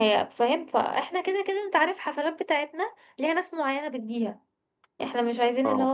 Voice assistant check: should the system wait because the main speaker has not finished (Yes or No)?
Yes